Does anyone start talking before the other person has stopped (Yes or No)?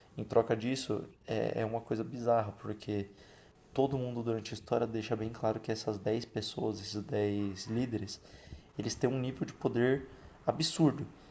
No